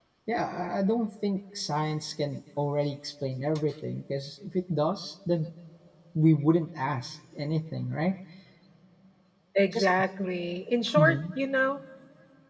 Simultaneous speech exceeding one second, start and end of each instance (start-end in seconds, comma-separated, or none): none